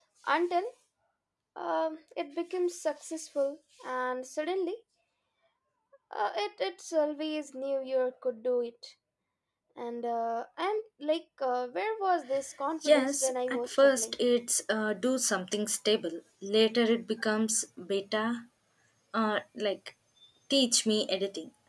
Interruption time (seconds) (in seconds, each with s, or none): 12.8 s